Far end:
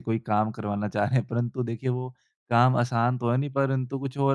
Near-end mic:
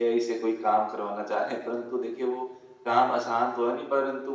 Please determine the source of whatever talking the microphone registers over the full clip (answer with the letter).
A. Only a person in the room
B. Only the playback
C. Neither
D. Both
B